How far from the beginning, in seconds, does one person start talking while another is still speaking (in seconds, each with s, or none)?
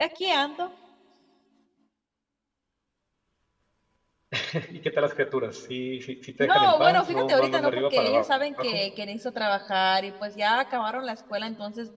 6.4 s